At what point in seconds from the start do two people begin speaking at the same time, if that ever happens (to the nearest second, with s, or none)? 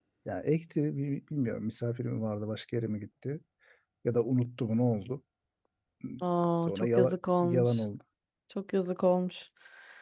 6 s